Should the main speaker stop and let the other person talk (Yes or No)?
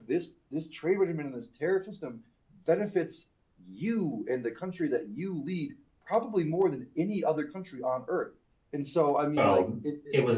Yes